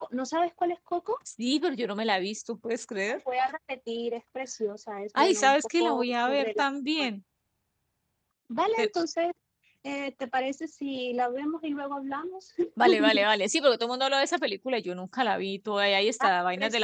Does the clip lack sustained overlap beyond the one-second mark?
No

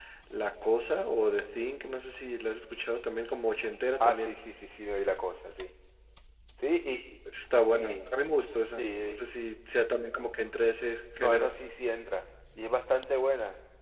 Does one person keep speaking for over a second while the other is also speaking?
No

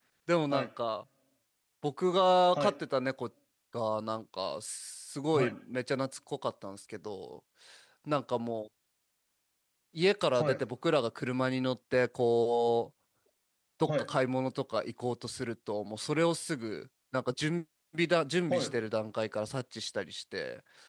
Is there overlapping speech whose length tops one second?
No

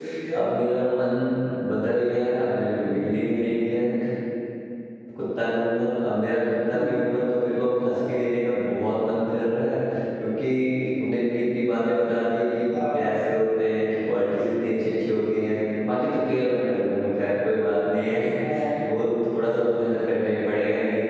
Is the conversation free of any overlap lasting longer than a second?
Yes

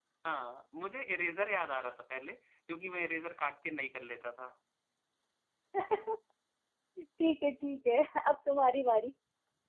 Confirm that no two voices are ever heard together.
Yes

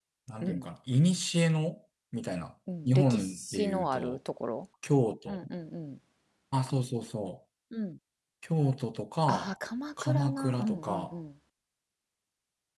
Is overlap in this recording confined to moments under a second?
No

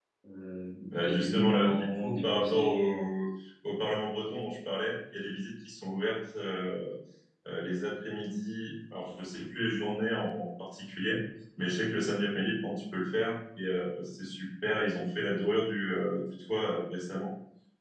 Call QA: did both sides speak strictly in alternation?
No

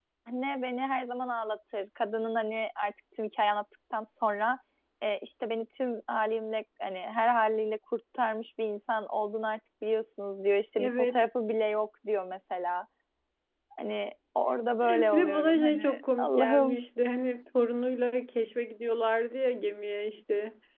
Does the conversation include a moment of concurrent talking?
Yes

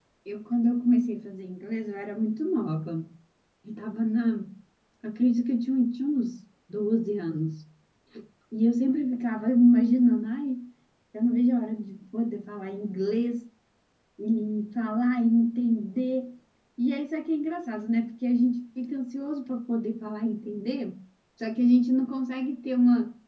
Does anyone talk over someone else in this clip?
No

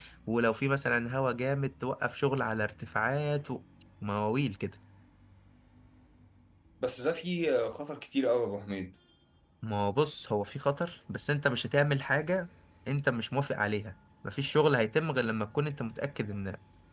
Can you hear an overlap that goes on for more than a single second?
No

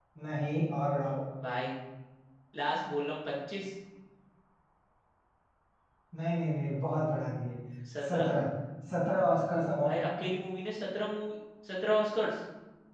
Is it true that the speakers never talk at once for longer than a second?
Yes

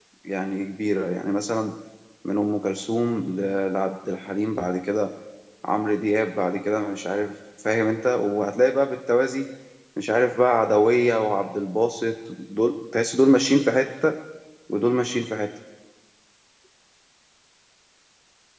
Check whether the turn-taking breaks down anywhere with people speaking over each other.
No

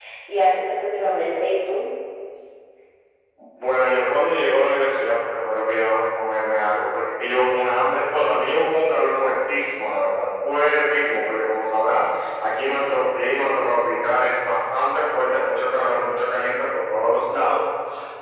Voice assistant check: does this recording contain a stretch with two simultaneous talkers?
No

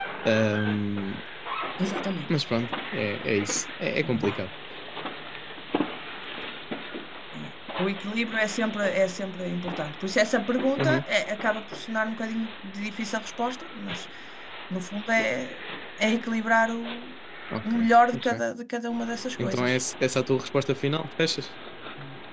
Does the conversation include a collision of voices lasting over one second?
No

